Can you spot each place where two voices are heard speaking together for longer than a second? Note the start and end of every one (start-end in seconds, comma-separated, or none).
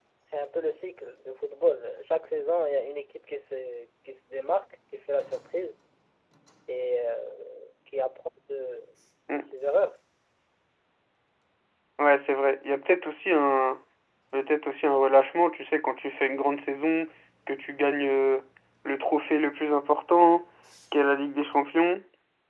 none